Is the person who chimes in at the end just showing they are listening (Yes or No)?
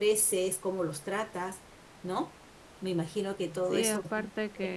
No